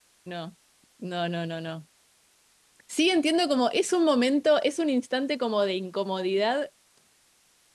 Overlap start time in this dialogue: none

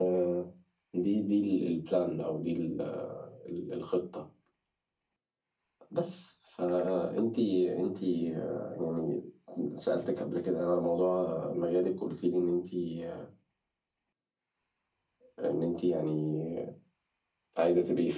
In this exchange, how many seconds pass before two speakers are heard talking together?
none

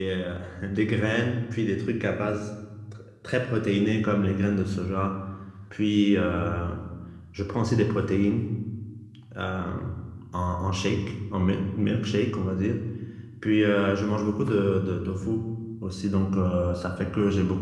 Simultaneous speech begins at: none

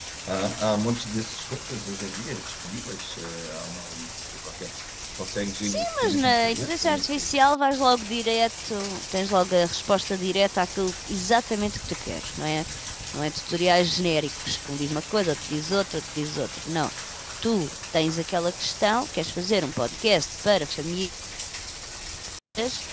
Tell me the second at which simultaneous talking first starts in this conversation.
5.6 s

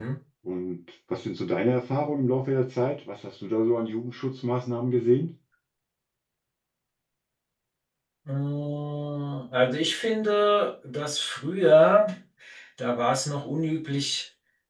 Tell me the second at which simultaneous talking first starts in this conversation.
none

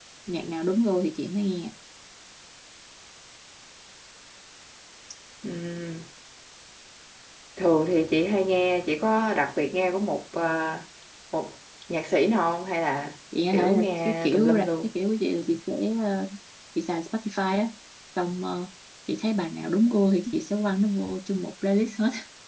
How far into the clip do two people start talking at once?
13.3 s

